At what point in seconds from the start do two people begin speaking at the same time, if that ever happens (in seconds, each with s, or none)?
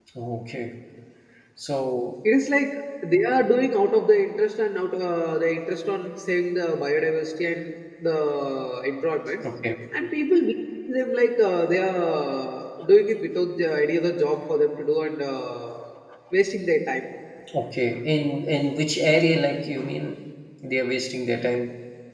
none